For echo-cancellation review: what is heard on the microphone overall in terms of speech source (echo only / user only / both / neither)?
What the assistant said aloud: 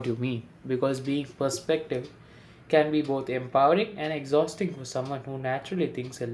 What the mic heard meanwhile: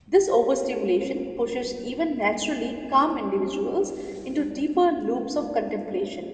user only